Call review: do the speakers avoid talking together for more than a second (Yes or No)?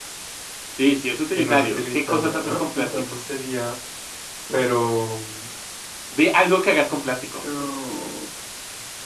No